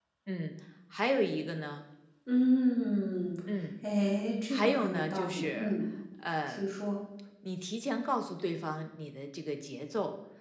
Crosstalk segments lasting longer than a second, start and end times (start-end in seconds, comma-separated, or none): 4.5-5.7